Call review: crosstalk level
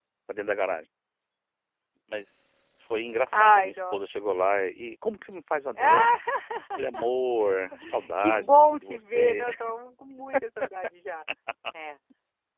present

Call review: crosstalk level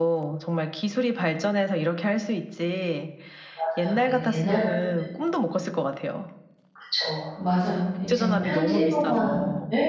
present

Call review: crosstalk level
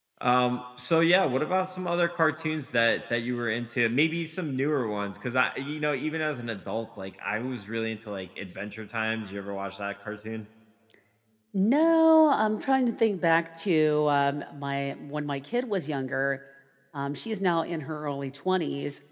none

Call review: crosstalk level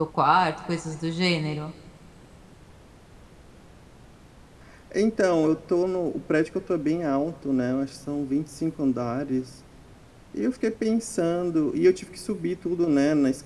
none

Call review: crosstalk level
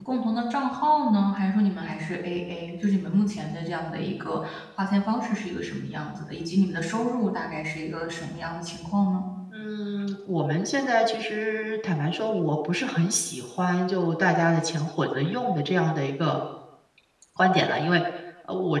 none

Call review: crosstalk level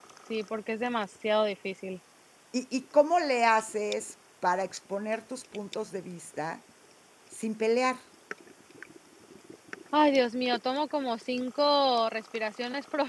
none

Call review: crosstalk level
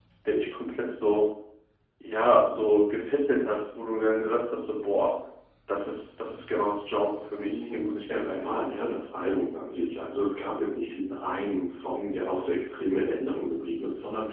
present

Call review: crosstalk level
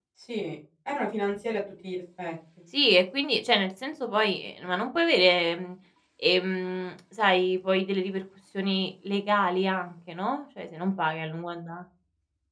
none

